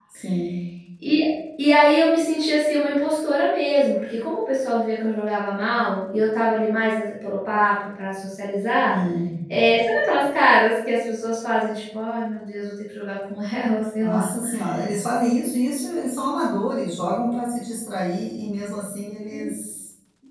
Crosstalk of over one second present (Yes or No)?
No